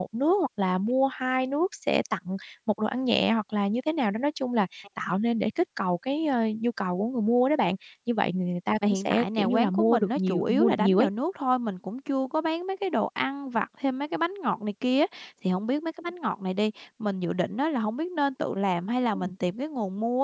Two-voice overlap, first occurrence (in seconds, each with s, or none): 8.8 s